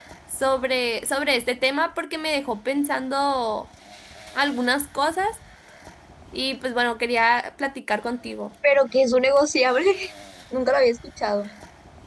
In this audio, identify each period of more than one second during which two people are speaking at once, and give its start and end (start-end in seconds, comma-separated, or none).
none